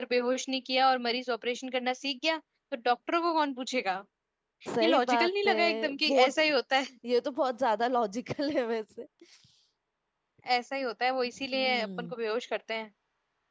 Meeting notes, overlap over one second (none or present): present